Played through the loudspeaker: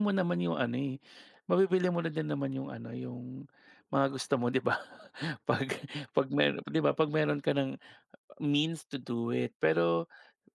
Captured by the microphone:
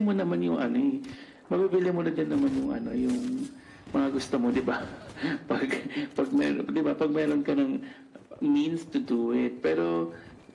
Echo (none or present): present